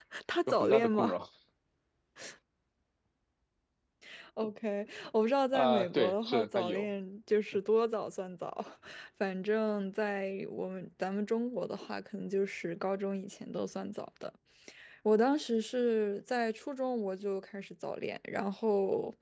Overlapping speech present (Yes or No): Yes